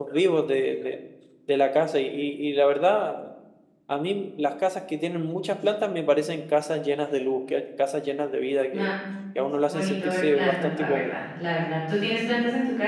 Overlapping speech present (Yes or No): Yes